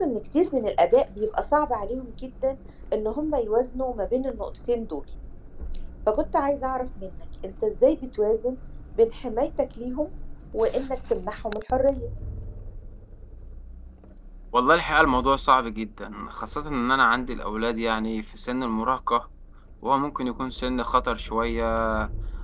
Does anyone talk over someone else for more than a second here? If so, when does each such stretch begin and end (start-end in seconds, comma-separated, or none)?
none